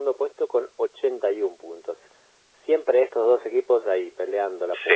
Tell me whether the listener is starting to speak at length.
Yes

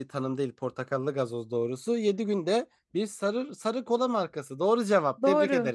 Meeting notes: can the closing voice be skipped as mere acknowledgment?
No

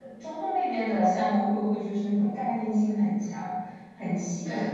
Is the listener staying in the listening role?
No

